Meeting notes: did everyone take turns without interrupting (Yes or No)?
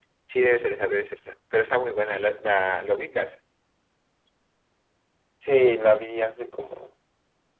Yes